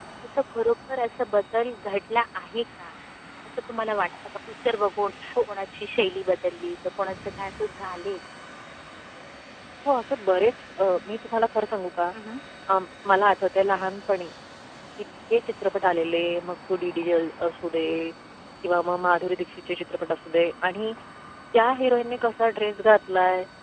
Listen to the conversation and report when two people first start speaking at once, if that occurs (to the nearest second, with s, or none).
none